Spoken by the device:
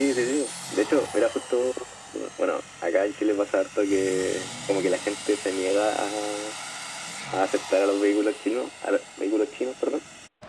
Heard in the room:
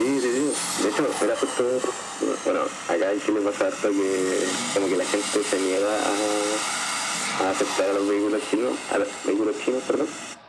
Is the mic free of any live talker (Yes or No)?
Yes